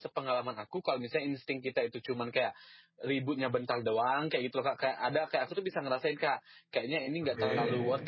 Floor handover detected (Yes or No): No